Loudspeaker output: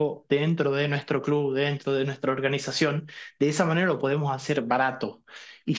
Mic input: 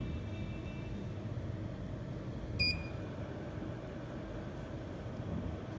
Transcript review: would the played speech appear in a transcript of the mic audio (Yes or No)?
No